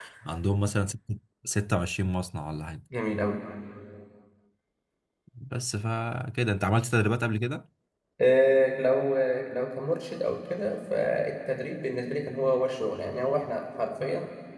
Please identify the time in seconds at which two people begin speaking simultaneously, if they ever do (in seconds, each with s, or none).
none